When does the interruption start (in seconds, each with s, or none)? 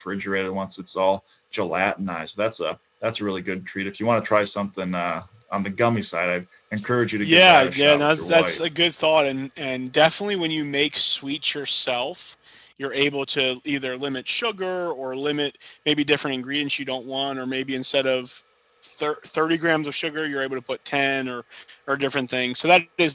7.2 s